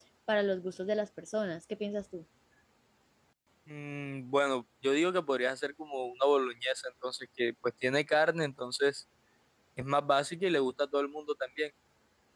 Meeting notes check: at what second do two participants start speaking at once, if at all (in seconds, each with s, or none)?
none